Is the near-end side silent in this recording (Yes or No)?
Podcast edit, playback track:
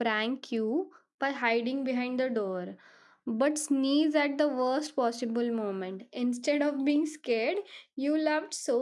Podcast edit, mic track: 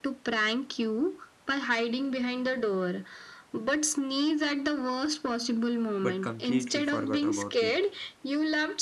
No